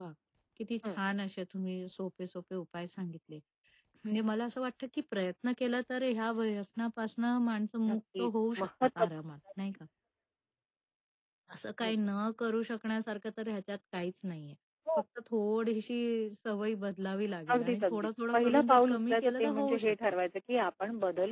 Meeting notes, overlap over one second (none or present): present